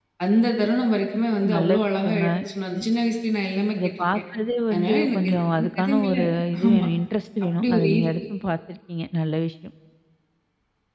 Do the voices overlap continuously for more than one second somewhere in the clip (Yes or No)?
Yes